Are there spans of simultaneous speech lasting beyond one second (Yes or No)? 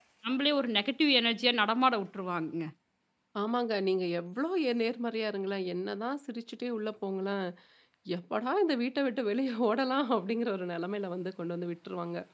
No